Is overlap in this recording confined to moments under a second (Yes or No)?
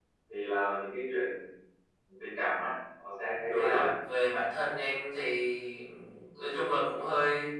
Yes